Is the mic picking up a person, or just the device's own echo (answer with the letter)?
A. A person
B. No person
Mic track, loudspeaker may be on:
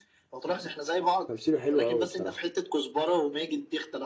A